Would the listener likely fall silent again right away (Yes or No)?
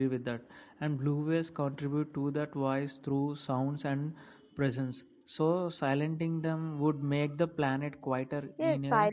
No